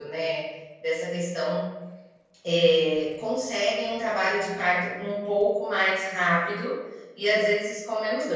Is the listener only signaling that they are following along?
Yes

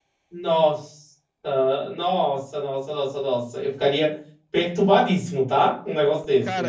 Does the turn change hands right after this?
Yes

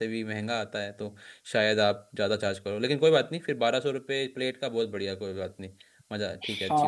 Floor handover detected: Yes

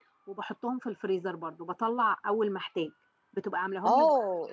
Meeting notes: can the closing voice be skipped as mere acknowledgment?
No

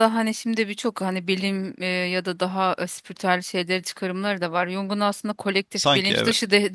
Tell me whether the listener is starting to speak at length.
No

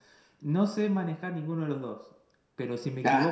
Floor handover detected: No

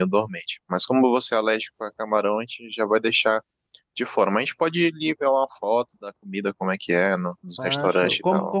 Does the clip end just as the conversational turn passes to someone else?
Yes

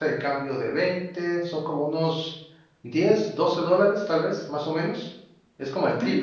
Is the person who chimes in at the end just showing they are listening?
No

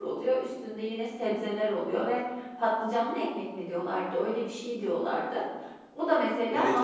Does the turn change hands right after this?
Yes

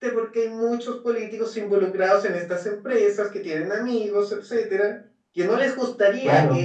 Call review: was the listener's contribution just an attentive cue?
Yes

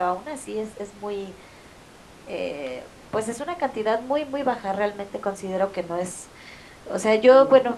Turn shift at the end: No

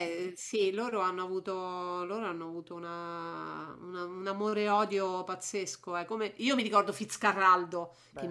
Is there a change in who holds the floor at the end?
No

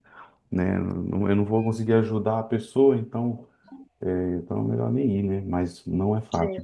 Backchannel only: Yes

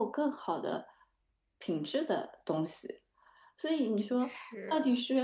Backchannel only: Yes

